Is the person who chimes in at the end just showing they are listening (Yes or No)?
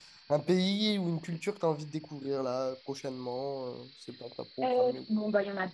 No